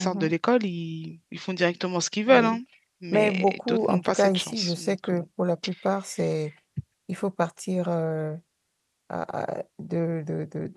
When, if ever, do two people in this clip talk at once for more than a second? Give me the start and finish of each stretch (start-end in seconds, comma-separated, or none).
3.1-5.2